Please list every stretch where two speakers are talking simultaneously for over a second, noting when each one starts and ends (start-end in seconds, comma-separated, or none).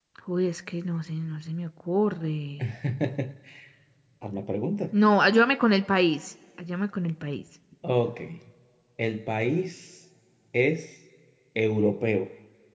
none